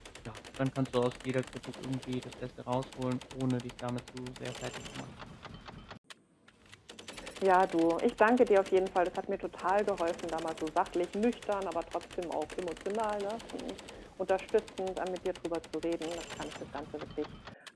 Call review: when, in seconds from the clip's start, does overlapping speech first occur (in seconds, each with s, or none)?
none